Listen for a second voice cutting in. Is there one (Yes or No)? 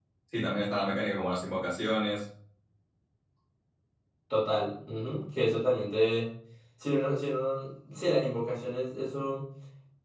No